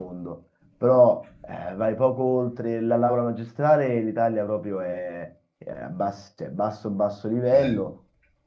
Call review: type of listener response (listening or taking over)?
listening